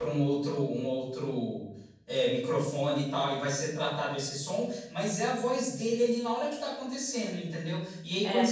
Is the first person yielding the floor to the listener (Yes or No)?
No